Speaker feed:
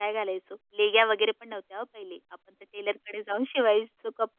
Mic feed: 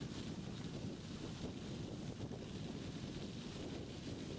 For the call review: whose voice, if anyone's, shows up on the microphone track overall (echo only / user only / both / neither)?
neither